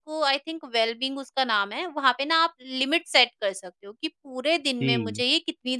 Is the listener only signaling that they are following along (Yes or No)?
Yes